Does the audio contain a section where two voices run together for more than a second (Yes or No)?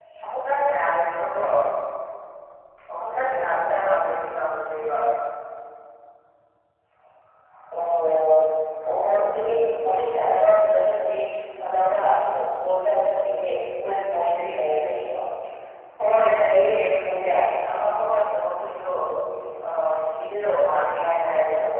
No